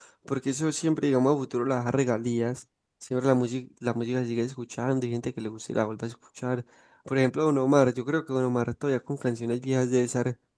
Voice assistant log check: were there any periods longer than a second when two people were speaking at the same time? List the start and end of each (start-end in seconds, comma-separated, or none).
none